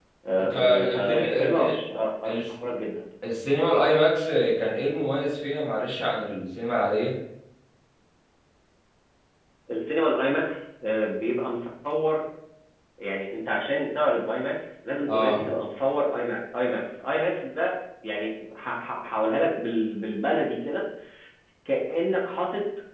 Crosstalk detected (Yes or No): Yes